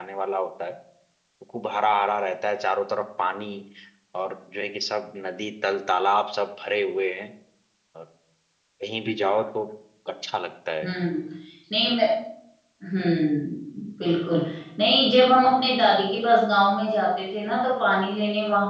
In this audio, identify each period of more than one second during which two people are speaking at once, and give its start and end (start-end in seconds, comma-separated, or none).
none